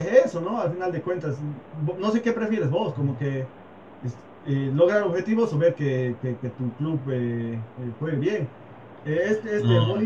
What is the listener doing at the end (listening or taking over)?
listening